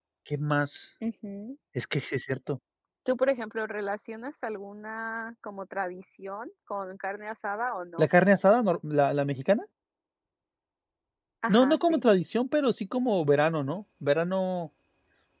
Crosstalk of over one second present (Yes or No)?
No